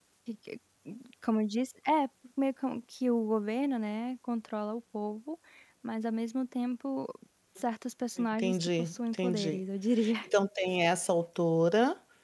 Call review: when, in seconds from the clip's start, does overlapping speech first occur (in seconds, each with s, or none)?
8.3 s